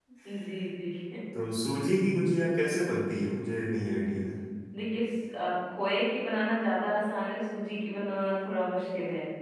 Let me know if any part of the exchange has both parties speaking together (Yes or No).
No